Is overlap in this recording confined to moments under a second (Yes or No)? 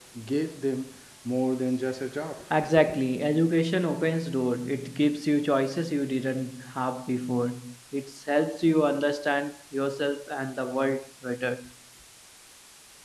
Yes